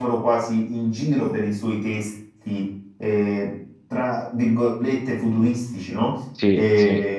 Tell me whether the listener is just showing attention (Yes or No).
Yes